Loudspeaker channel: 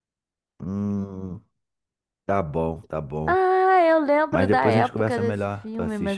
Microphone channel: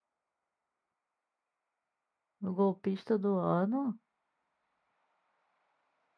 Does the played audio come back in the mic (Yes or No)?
No